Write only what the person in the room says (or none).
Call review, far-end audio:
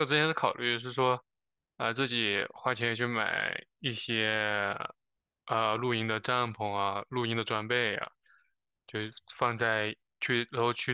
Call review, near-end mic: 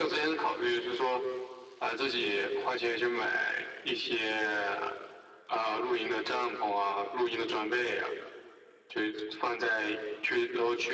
none